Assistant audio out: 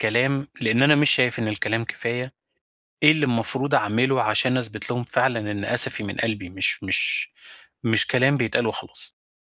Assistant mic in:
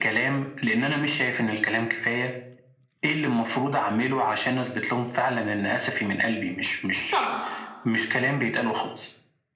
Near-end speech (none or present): present